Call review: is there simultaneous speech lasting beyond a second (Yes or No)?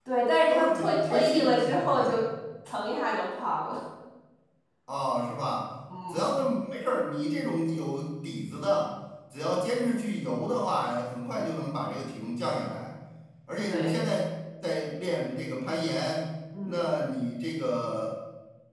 Yes